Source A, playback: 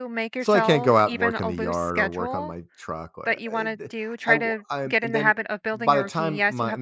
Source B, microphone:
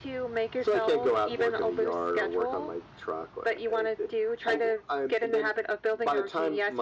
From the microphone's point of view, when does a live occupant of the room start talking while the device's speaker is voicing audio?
none

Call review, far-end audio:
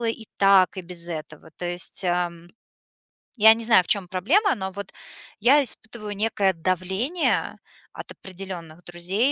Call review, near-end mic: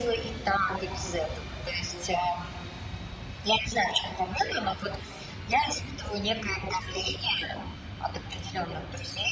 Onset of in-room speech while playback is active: none

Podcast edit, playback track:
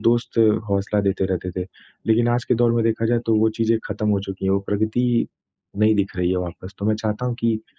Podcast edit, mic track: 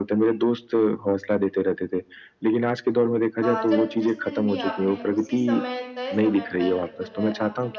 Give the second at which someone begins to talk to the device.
3 s

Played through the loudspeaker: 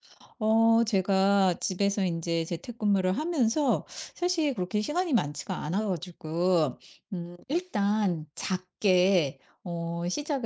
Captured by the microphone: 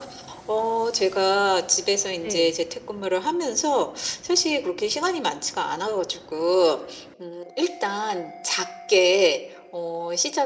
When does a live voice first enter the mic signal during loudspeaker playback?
2 s

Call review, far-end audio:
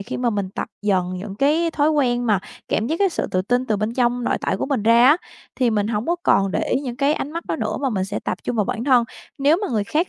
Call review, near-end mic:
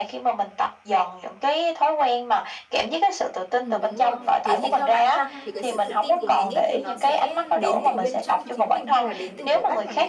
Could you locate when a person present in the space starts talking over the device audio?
4 s

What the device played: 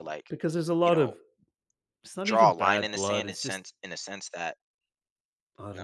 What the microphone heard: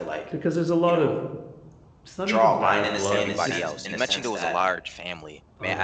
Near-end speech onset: 3 s

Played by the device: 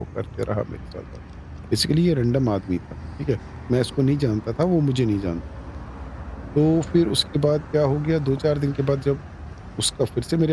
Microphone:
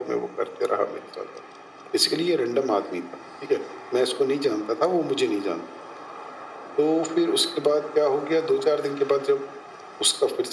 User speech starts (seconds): none

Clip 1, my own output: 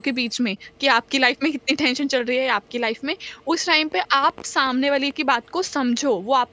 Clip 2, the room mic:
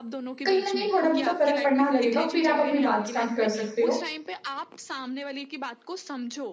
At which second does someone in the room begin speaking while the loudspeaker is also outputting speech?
0 s

